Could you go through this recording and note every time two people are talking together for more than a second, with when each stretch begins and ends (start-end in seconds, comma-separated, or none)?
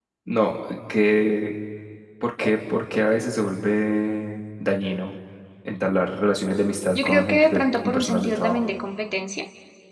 6.9-8.6